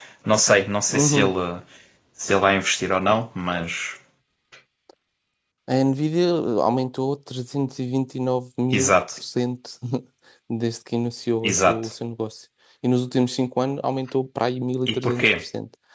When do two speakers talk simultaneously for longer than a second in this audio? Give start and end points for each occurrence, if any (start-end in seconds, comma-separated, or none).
none